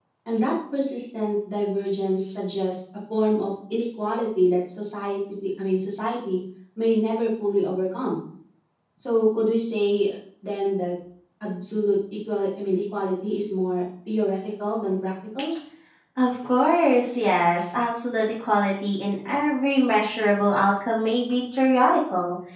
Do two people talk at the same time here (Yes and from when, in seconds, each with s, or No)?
No